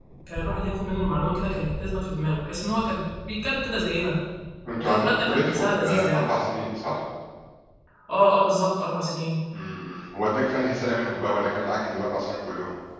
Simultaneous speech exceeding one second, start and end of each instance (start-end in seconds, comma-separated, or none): 4.8-6.3